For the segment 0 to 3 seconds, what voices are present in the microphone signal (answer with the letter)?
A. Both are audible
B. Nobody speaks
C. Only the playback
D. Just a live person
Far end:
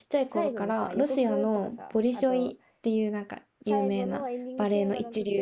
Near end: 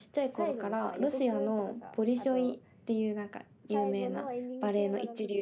C